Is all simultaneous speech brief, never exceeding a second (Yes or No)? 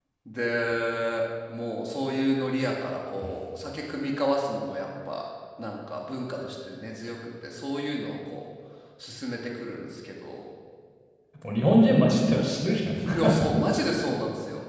Yes